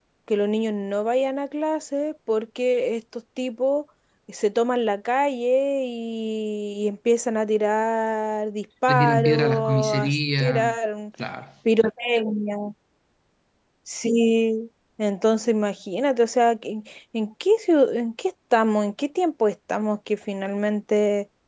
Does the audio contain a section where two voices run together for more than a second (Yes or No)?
Yes